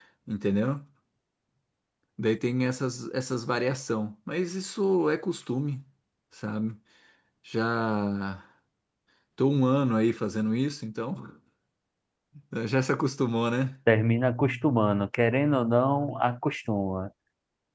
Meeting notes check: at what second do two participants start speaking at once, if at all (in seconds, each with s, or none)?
none